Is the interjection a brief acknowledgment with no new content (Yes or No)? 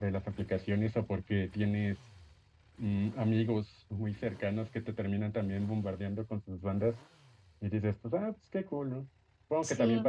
Yes